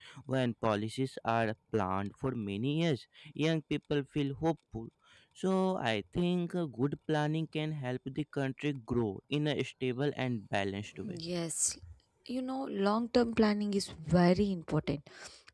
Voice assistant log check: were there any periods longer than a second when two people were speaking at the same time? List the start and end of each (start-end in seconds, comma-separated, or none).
none